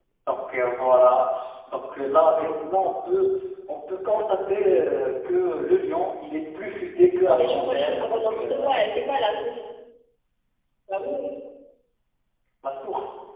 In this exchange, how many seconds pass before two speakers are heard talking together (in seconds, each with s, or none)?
7.2 s